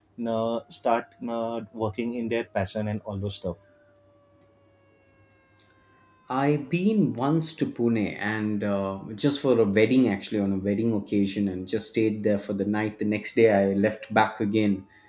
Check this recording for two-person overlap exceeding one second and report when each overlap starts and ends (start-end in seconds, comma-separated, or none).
none